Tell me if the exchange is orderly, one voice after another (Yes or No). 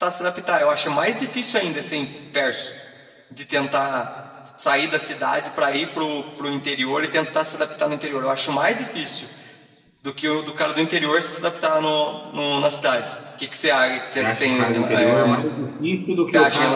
No